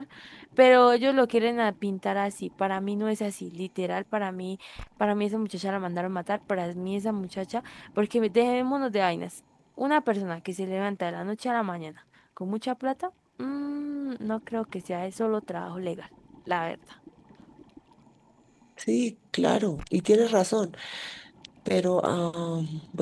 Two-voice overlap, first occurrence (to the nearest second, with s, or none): none